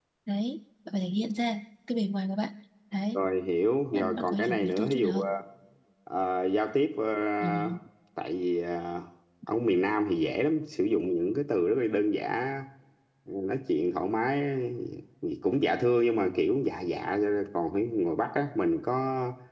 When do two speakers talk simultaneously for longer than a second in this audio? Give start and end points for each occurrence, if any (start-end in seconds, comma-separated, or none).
3.9-5.3